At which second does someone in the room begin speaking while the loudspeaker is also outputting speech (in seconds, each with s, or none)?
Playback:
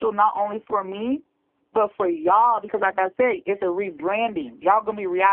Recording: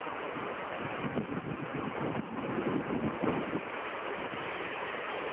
none